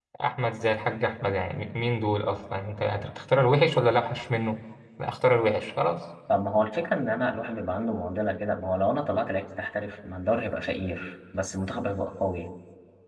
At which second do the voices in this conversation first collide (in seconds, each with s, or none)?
none